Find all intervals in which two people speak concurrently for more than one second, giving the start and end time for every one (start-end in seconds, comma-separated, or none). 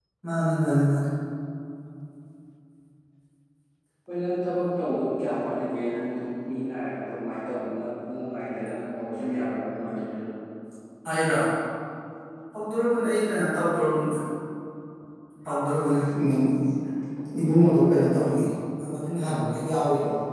none